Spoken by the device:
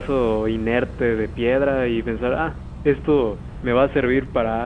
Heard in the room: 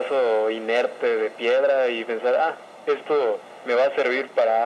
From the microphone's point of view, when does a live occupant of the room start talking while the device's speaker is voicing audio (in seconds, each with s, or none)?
none